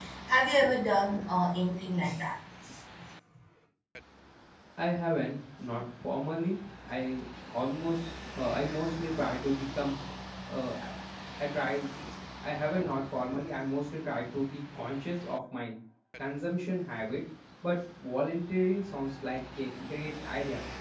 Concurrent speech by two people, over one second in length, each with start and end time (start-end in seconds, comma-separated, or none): none